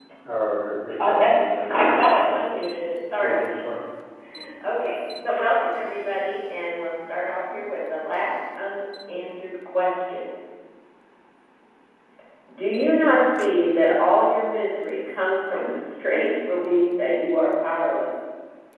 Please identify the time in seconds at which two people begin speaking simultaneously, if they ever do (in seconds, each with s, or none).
1.0 s